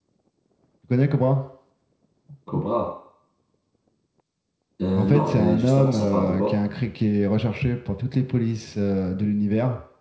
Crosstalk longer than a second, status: present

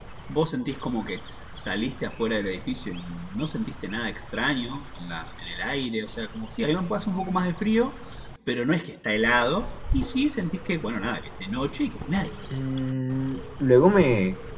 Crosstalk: none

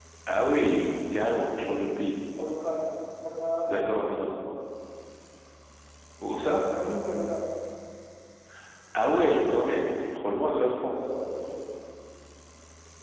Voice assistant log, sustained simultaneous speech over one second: none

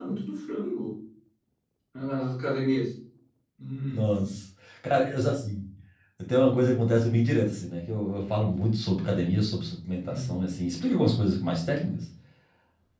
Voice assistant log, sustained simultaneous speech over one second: none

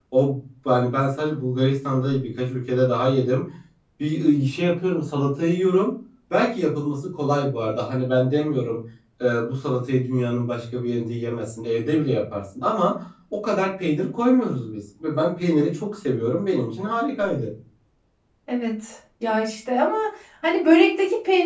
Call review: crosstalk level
none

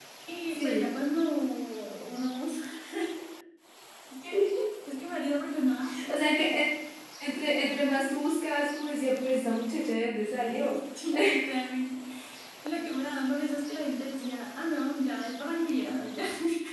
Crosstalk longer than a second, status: none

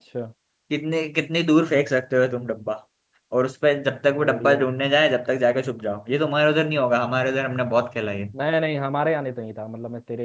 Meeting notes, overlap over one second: none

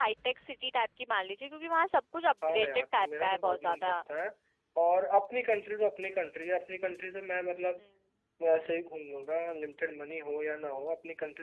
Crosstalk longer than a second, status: present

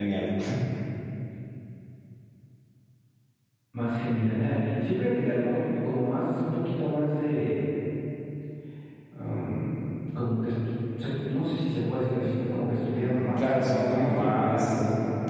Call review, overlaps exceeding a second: present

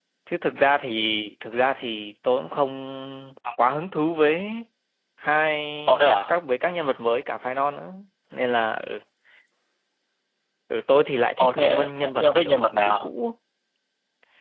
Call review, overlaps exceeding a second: present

